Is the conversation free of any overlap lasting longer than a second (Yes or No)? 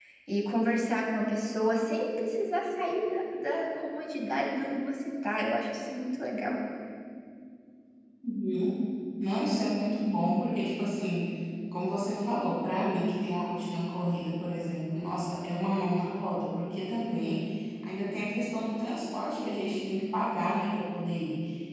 Yes